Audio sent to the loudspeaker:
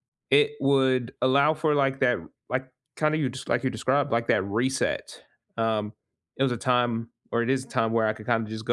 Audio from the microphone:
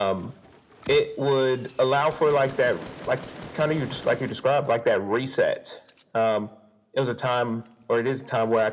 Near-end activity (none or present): none